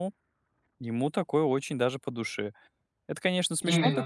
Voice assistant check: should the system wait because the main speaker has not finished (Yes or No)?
Yes